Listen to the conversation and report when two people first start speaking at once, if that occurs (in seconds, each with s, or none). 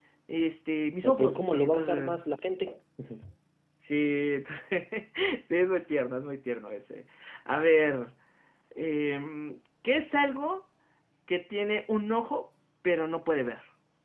1.0 s